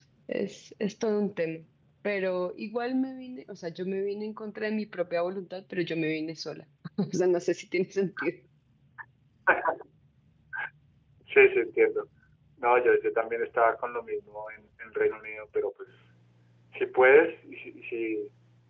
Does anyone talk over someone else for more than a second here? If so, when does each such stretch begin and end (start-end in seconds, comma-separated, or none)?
none